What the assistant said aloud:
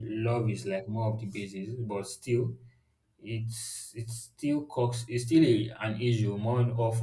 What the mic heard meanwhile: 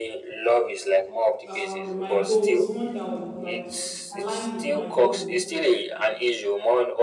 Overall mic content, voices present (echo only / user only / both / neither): both